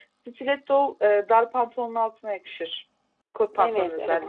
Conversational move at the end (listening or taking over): taking over